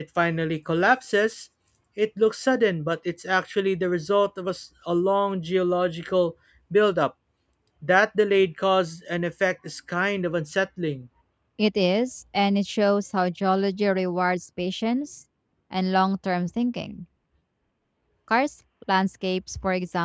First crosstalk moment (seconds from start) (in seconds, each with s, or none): none